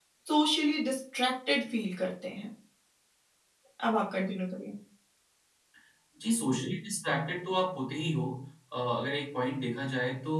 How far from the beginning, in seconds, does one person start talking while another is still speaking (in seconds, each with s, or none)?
none